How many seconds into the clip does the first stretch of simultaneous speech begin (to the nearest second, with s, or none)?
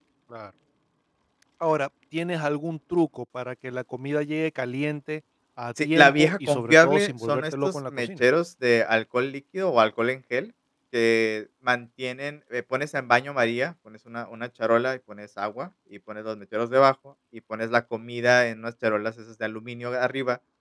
6 s